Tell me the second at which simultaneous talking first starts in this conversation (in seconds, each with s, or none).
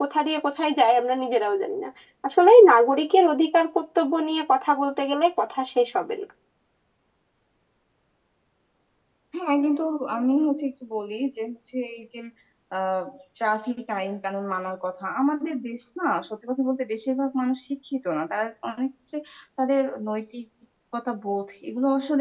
none